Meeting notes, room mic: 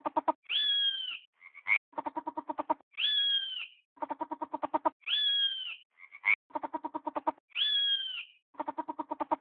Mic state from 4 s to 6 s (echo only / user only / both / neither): neither